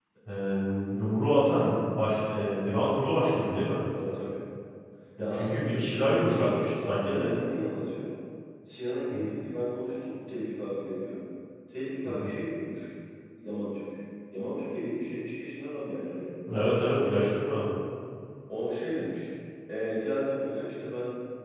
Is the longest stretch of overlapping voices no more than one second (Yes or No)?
No